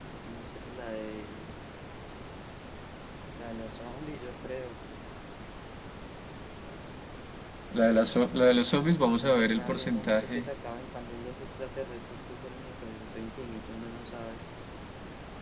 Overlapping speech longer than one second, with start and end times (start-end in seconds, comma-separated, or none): 9.2-10.5